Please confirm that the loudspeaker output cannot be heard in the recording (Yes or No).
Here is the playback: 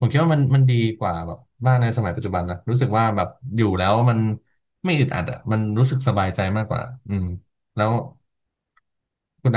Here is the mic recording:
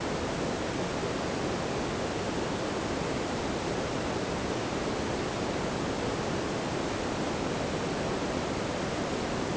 Yes